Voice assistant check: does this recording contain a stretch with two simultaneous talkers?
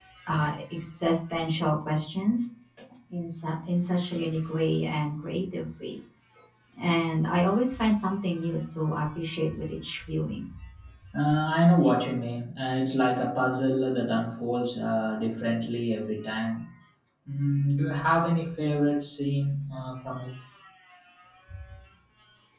No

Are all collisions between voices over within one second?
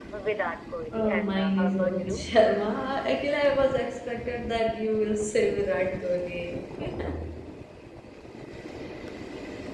No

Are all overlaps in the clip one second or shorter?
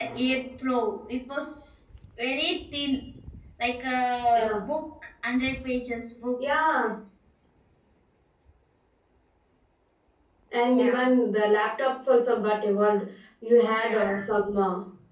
Yes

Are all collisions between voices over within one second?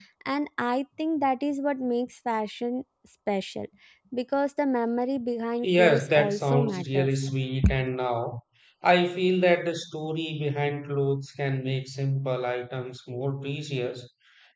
No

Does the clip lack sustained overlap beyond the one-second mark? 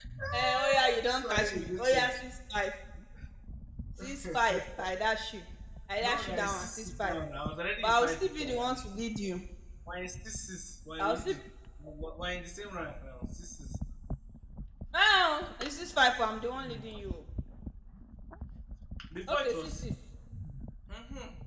No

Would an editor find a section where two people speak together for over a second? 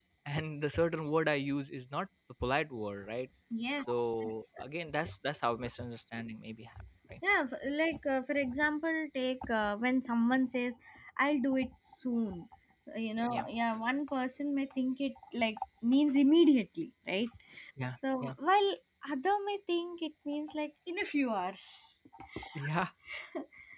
No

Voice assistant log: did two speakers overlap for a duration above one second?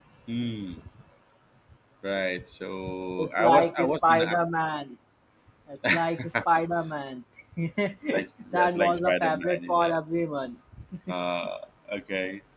Yes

